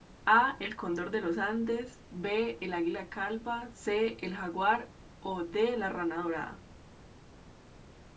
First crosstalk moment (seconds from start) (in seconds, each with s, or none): none